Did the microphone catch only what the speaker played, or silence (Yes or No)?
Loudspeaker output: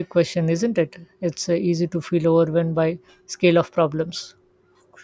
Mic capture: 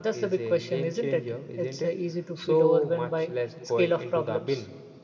No